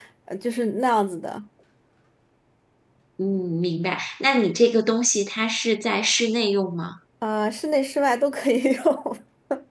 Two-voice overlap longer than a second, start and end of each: none

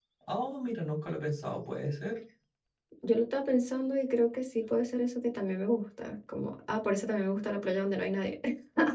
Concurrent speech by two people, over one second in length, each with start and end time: none

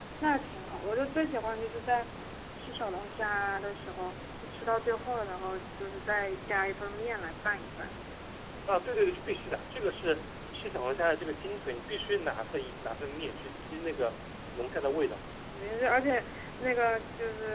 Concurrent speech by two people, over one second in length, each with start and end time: none

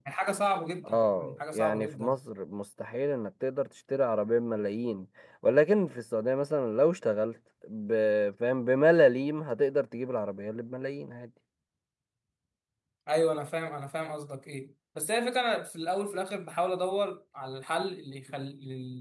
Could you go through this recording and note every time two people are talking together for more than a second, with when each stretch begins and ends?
0.8-2.2

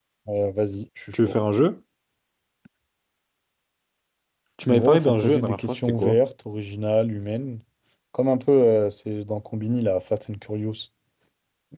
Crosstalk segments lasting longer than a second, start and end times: 4.7-6.2

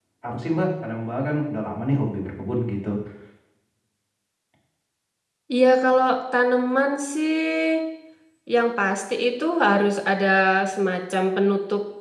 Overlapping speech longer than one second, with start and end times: none

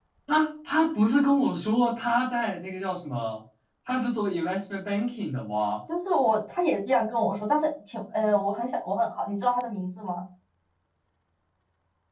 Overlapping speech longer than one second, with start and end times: none

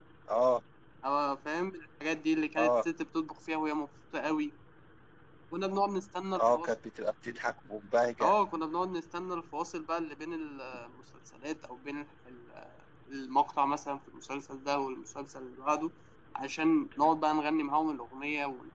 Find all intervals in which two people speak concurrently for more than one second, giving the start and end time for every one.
none

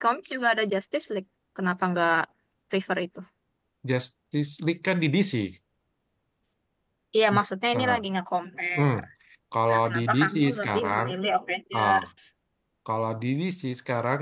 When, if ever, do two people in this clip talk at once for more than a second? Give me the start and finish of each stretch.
9.7-11.1

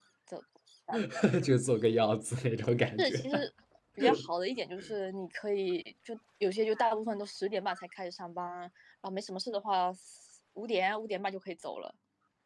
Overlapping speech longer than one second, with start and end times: none

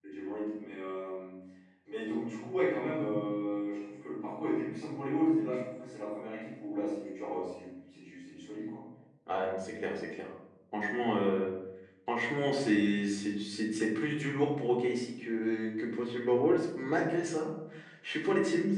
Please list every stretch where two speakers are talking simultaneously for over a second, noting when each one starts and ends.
none

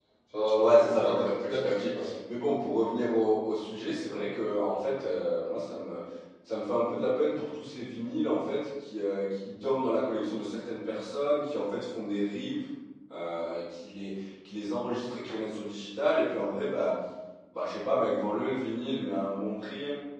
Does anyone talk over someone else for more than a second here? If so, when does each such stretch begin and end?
0.6-2.1

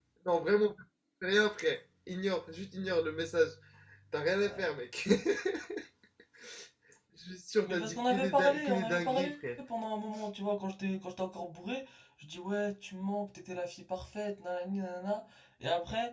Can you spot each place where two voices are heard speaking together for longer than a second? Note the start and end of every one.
7.6-9.4

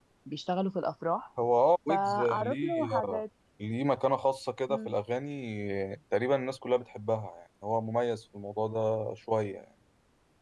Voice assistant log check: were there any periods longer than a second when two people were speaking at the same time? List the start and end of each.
1.9-3.2

